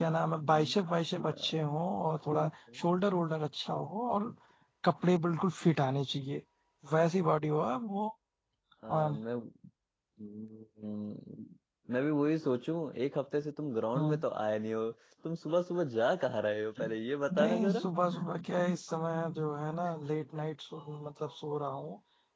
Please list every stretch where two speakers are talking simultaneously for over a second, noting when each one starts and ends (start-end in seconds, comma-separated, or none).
none